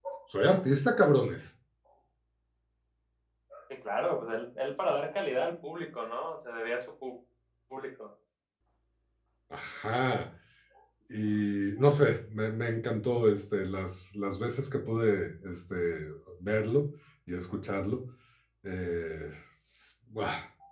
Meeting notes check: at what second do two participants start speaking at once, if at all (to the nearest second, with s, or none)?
none